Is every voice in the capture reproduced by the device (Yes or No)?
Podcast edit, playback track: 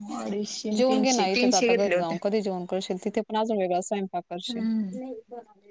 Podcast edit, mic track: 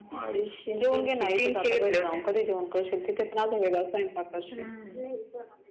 Yes